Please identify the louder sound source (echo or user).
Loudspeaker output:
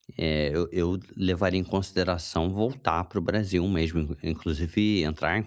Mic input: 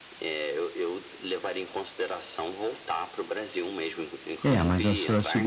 user